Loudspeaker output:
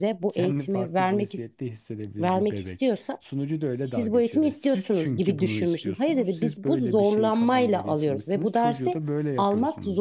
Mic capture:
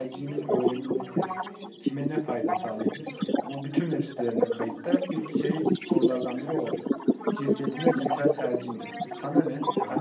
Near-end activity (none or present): present